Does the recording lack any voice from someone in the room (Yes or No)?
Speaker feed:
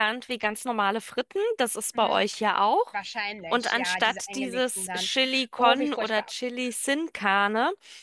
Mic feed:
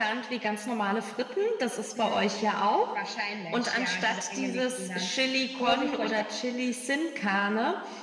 Yes